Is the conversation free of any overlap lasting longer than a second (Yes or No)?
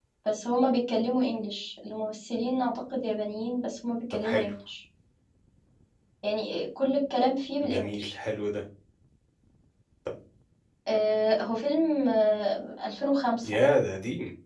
Yes